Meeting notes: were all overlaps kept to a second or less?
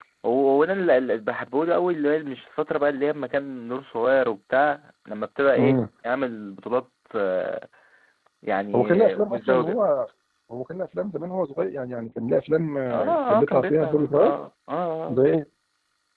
No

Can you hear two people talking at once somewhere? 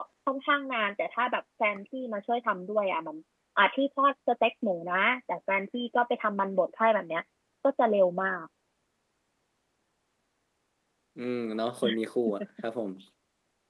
No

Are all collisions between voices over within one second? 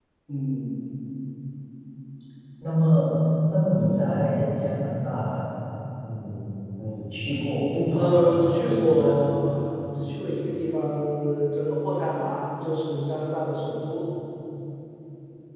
No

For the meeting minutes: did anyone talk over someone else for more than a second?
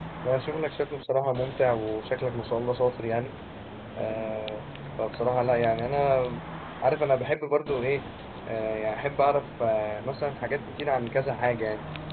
No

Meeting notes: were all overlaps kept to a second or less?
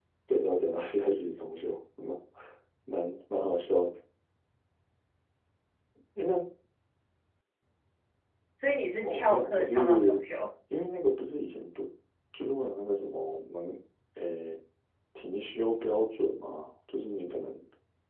No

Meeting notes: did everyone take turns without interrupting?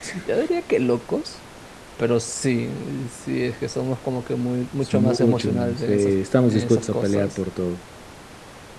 No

